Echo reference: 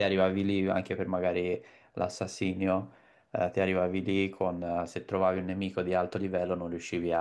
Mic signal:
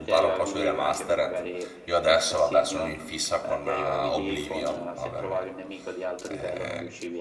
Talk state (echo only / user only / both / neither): both